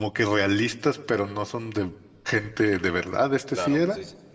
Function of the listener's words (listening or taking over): taking over